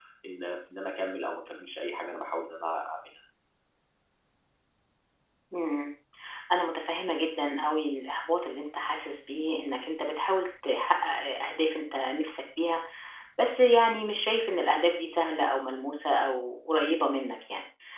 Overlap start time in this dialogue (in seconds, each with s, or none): none